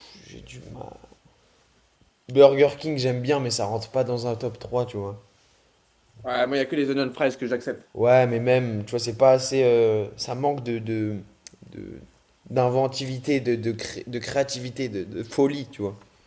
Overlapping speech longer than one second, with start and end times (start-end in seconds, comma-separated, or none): none